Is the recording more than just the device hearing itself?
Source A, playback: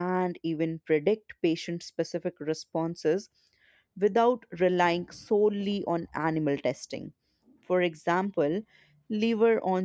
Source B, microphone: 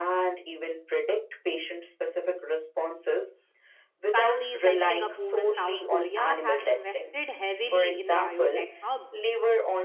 Yes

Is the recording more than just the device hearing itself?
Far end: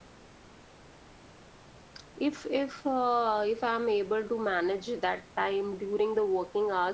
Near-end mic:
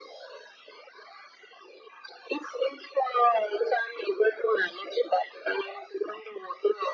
No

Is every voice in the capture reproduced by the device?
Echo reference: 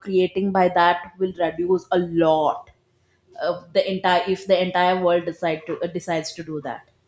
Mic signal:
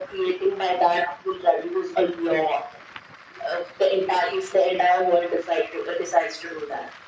Yes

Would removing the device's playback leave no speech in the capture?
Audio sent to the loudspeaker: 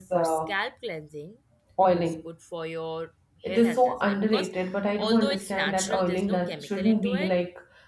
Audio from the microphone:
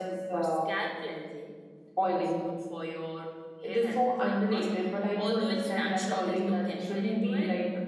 Yes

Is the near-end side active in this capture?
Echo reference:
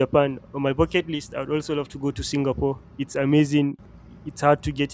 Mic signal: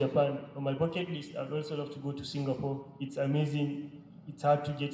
No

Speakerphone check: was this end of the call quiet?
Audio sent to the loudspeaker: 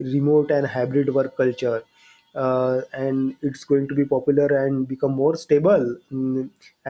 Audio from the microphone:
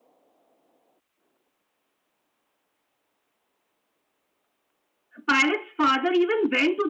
No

